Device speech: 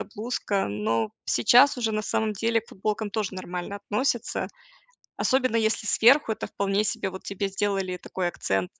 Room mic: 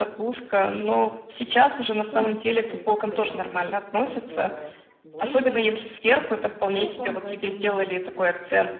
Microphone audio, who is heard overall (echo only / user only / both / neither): both